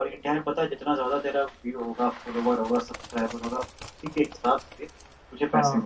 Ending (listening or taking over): listening